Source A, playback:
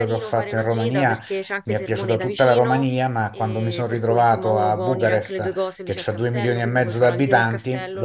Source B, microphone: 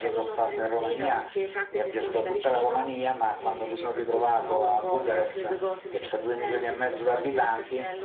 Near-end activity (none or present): none